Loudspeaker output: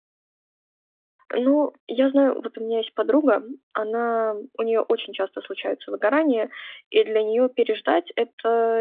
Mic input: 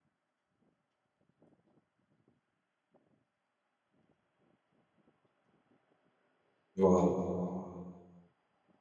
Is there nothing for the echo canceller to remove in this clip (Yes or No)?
Yes